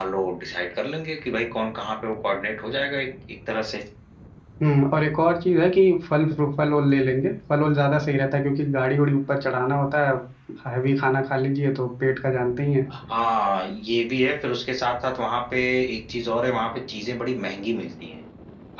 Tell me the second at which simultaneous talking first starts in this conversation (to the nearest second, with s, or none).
none